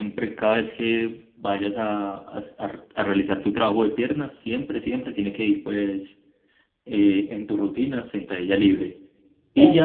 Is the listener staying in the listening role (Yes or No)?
Yes